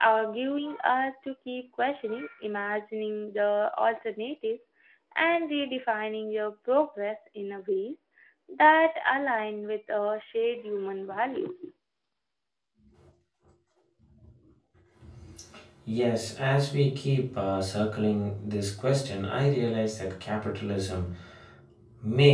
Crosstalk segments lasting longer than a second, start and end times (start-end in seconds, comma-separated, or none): none